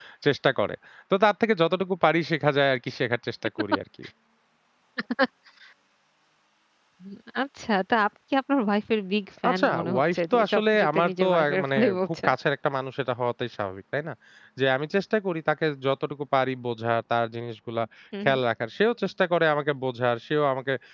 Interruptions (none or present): present